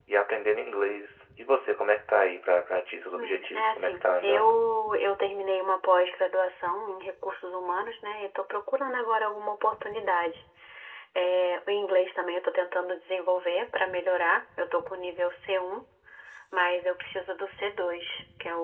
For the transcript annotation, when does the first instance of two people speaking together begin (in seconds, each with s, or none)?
3.1 s